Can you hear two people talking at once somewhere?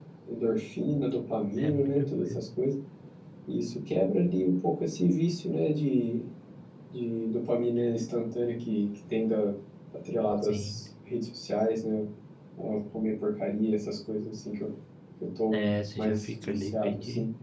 Yes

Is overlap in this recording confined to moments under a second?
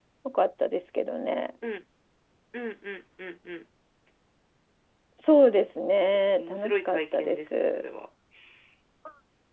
No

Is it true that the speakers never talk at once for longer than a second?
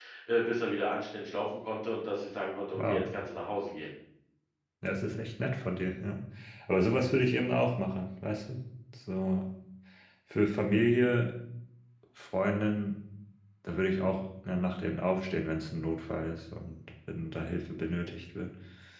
Yes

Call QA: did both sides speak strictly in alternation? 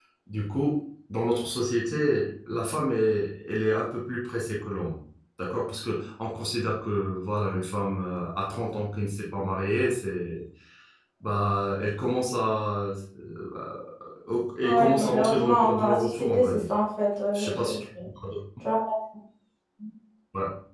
No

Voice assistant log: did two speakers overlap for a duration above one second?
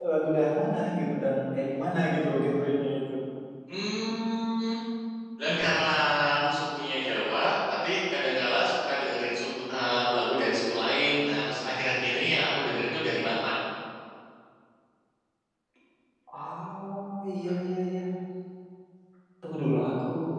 No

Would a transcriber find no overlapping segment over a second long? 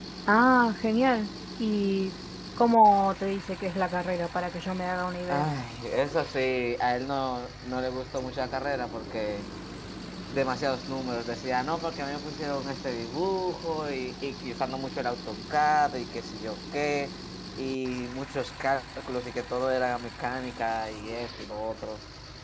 Yes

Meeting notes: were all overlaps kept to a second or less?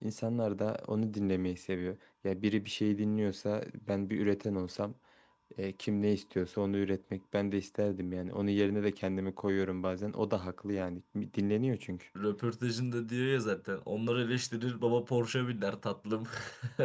Yes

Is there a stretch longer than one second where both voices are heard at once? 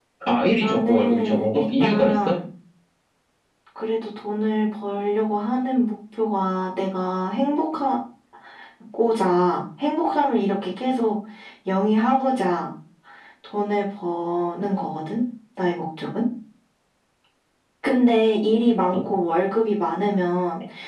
Yes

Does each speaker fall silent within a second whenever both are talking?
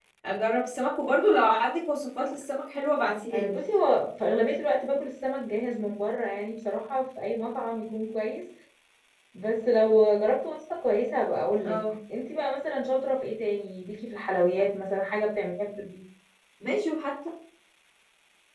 Yes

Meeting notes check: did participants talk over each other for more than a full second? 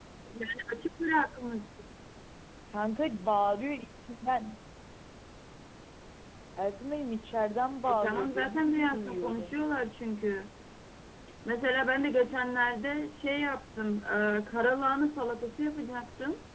Yes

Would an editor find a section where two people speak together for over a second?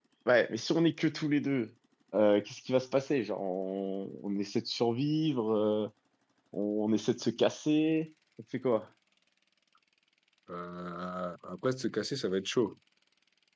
No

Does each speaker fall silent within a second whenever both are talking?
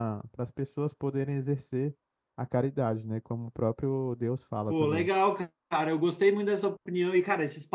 Yes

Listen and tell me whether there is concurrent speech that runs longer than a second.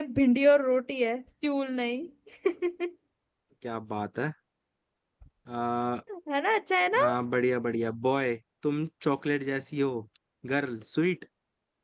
No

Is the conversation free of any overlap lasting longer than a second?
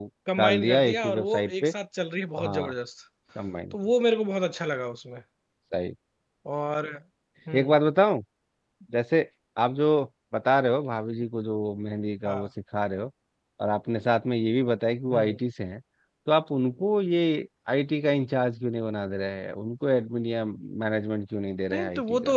No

